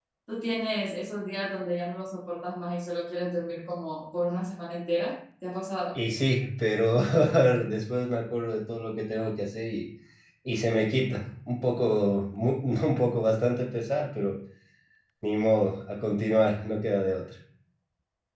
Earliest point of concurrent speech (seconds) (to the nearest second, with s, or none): none